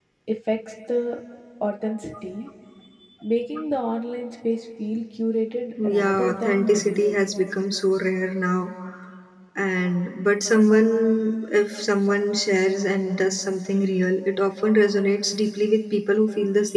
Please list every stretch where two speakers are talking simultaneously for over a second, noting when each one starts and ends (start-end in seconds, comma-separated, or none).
5.8-7.2